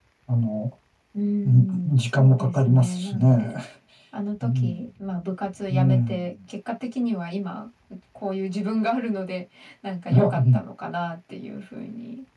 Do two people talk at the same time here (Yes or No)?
Yes